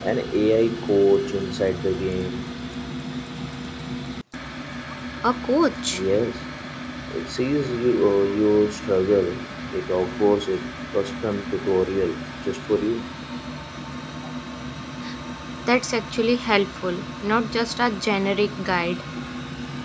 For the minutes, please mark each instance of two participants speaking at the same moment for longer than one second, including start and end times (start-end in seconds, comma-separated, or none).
none